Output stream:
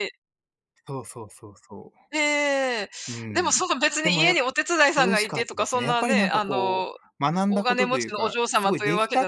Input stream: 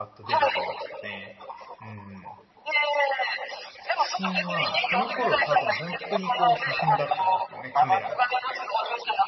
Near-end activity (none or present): present